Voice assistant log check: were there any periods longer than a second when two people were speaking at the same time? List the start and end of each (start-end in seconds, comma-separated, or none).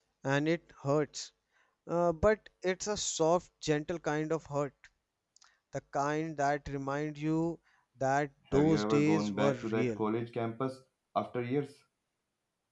8.5-10.0